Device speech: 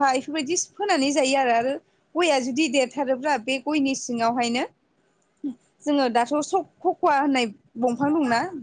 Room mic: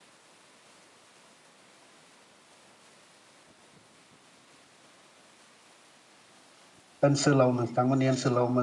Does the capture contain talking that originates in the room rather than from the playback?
Yes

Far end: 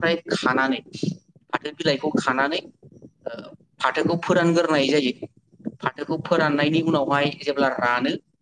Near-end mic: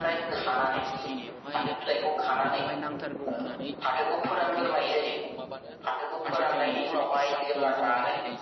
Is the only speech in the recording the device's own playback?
No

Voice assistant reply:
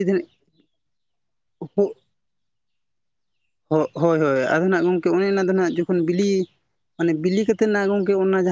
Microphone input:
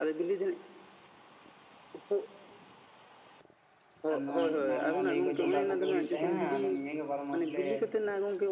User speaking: Yes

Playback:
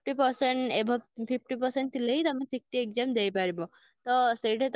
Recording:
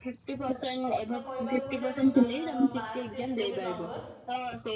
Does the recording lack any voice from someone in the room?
No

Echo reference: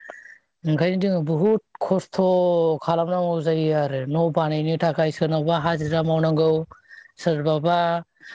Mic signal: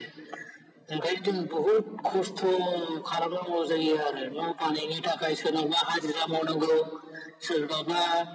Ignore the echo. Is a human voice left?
No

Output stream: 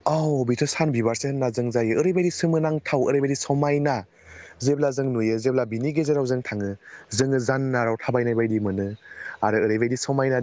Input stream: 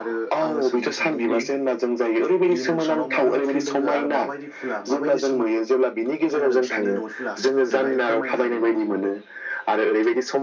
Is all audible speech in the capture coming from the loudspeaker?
No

